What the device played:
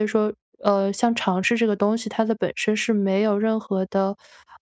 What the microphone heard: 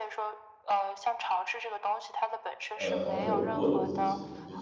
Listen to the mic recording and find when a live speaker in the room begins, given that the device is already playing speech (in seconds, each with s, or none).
2.7 s